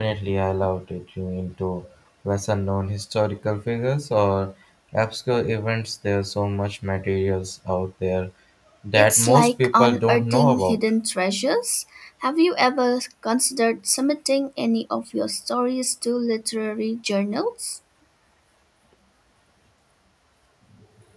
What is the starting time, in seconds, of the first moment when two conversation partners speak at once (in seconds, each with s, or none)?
9.0 s